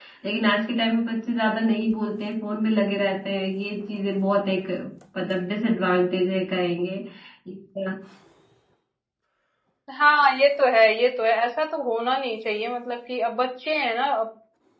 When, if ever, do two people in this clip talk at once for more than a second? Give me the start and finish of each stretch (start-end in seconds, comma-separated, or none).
none